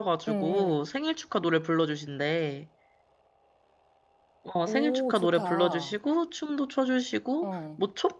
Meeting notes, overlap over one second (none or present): present